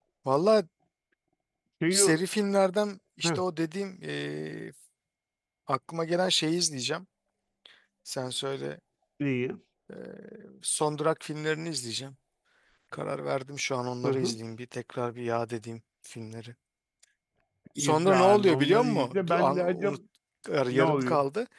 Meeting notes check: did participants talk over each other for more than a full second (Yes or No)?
Yes